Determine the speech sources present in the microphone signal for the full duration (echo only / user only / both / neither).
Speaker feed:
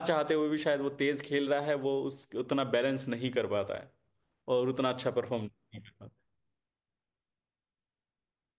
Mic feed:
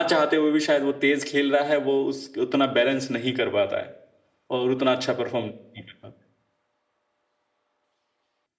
echo only